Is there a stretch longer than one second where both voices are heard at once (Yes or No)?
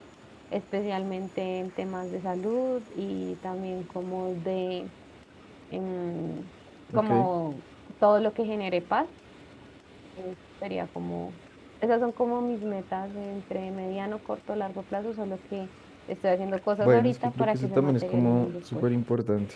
Yes